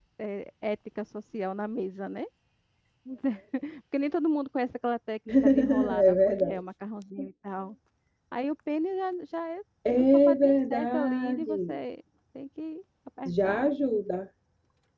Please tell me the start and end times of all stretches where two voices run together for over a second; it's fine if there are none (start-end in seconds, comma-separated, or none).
5.4-6.6, 9.9-11.8